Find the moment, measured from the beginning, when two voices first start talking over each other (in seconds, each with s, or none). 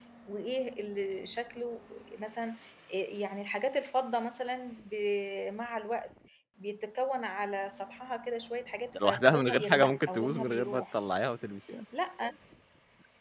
8.9 s